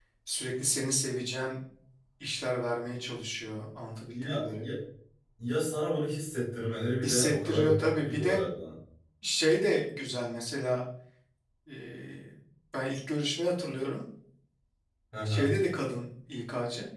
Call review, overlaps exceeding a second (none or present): present